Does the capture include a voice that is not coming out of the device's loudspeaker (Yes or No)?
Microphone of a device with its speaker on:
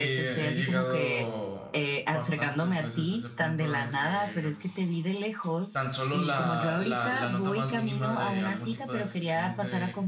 Yes